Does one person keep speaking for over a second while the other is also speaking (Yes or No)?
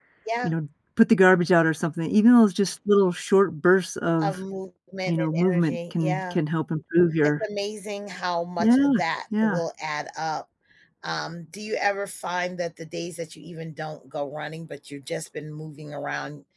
Yes